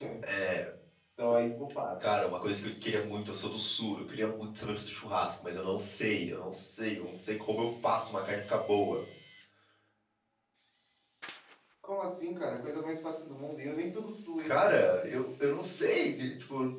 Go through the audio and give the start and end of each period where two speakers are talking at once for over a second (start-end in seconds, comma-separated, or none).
none